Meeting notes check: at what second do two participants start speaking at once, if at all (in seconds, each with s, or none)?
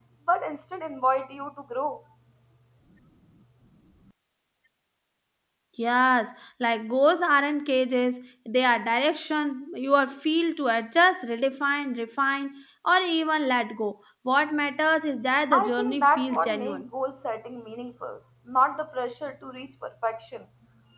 15.5 s